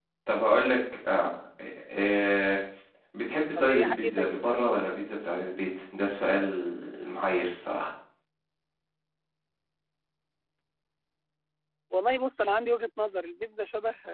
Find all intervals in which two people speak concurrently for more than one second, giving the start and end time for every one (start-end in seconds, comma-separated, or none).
3.6-4.8